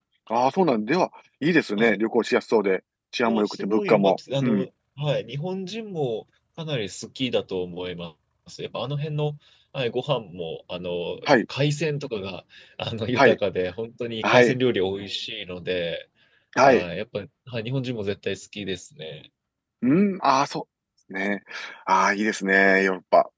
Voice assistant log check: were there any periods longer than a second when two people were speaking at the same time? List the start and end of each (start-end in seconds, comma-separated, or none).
3.2-4.6